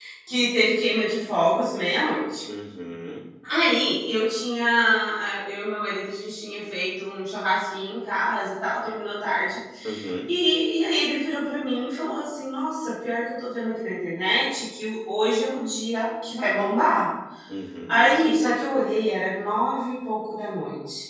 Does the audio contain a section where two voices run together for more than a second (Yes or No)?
No